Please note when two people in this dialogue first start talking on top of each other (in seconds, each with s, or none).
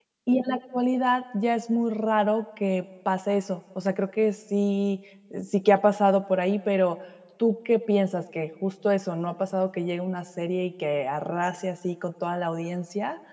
none